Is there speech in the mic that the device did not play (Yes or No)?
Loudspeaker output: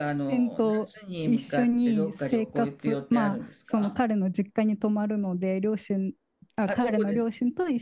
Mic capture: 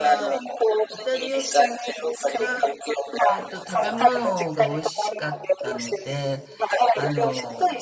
Yes